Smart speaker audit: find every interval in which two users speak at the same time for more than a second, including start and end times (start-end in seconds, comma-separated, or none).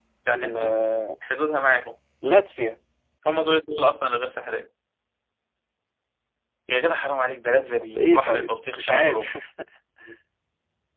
7.8-9.4